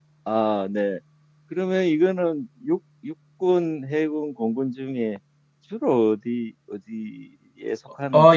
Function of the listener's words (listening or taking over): taking over